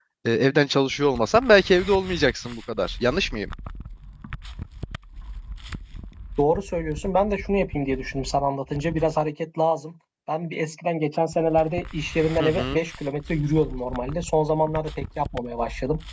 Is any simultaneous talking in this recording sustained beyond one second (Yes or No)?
No